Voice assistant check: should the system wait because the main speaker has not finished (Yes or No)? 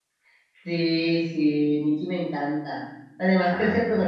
Yes